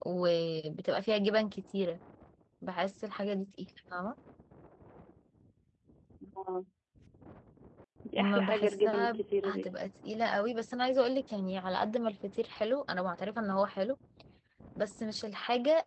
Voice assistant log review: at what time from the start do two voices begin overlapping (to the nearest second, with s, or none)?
8 s